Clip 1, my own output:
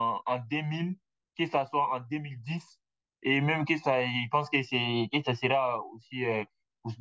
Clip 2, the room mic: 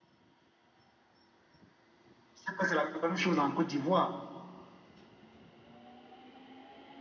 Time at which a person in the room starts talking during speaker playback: 2.3 s

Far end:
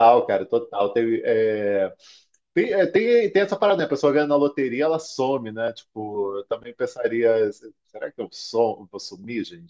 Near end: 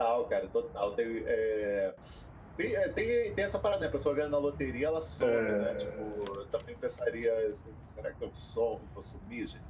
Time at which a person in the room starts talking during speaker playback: 5.2 s

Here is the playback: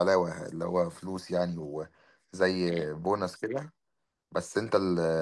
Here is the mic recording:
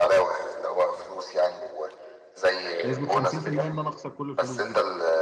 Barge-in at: 2.8 s

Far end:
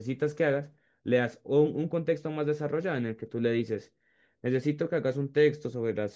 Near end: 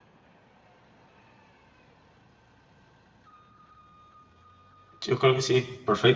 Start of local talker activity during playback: 5.0 s

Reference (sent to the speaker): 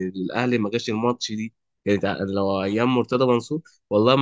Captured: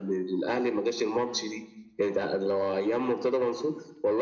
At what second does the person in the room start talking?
none

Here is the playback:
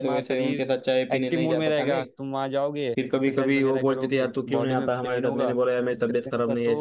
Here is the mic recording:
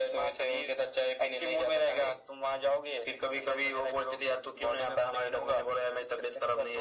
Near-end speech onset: none

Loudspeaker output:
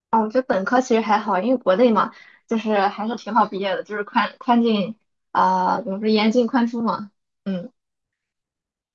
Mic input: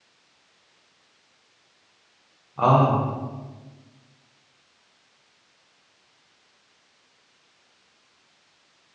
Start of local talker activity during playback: 2.5 s

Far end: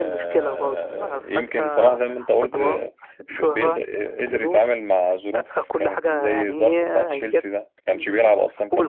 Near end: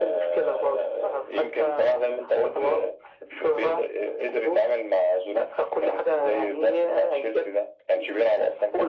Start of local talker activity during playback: none

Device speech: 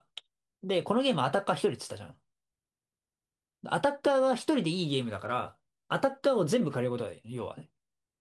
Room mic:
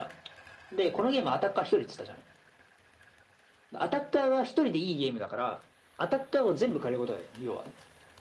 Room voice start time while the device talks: none

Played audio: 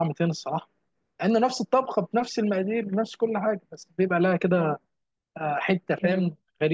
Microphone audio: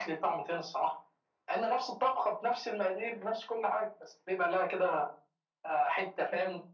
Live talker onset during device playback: none

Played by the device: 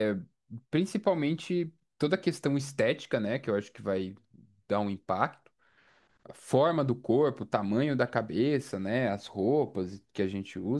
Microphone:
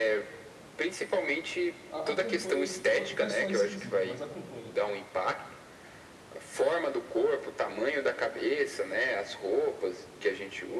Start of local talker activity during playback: 1.9 s

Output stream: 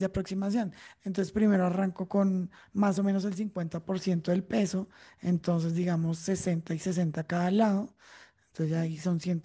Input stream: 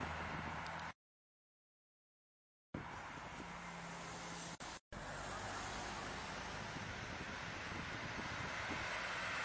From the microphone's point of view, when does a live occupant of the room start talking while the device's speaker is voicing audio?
none

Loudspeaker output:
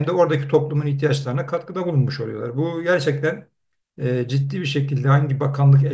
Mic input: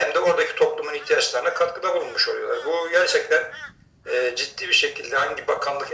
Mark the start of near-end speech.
none

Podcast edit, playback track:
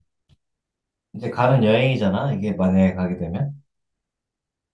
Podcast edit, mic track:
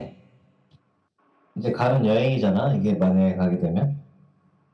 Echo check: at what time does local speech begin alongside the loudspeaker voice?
none

